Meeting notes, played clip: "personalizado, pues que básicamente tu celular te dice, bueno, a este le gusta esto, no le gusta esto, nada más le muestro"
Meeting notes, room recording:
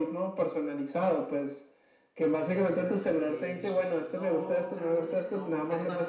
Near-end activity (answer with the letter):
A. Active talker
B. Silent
A